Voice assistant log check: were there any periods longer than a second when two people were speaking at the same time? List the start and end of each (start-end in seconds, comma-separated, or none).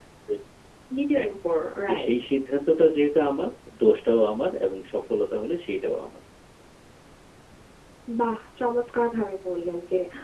none